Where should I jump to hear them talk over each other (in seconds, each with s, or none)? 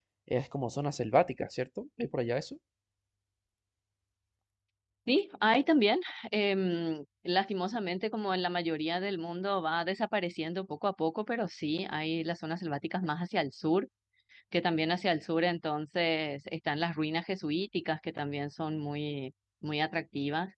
none